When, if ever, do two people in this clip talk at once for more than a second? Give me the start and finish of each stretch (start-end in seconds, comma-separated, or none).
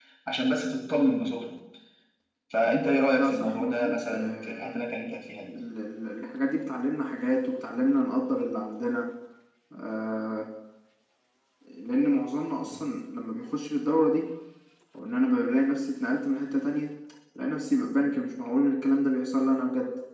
3.2-4.8